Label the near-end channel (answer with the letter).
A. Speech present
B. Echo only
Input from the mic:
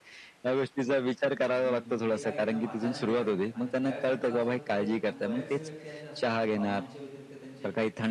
A